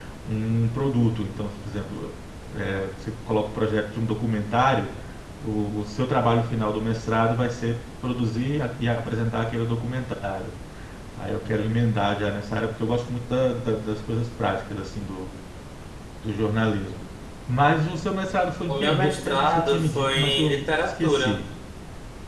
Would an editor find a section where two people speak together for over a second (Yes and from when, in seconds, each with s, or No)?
Yes, from 18.7 s